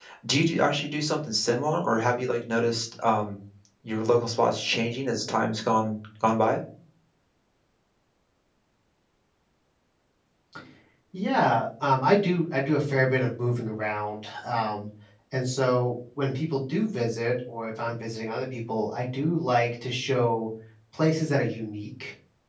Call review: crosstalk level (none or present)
none